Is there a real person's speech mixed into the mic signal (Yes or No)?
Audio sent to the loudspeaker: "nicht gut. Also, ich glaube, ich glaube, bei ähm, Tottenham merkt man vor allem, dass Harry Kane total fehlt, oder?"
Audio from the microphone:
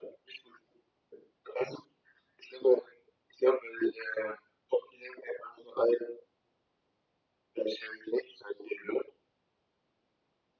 No